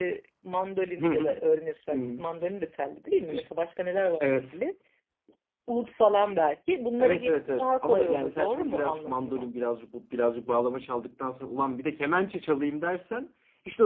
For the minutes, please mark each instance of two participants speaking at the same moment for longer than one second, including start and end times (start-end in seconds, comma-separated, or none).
7.0-9.5